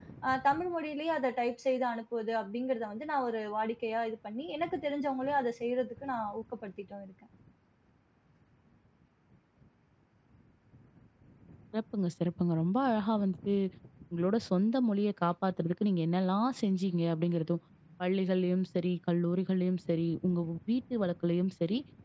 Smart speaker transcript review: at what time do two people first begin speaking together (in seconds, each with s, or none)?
none